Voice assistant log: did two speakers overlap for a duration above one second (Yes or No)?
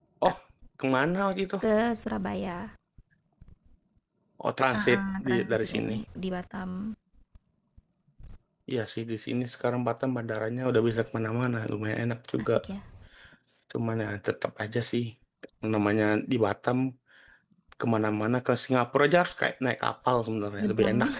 Yes